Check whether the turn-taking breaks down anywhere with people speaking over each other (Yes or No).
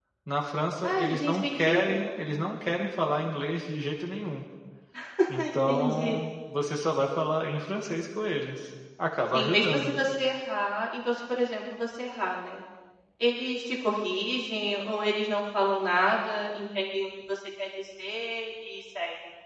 Yes